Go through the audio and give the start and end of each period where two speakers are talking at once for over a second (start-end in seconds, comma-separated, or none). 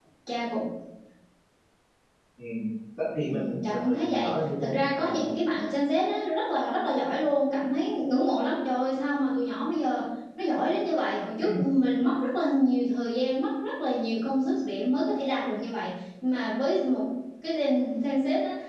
3.2-5.0